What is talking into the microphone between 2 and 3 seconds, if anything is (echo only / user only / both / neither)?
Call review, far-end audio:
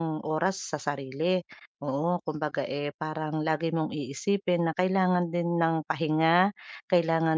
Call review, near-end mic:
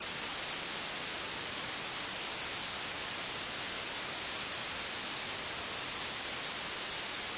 neither